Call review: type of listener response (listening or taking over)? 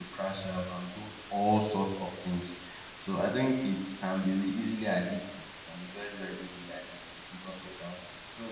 listening